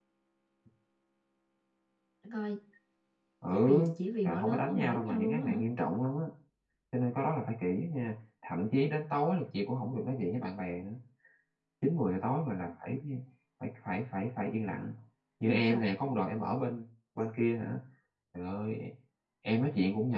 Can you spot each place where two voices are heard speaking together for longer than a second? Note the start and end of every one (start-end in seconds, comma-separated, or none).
4.2-5.6